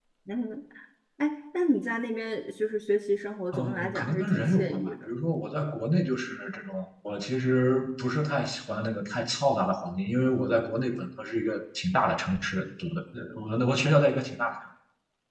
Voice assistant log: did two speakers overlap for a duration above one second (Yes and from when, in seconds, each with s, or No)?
Yes, from 3.5 s